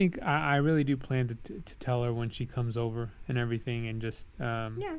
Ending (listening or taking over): taking over